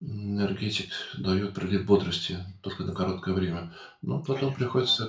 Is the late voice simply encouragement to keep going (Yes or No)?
Yes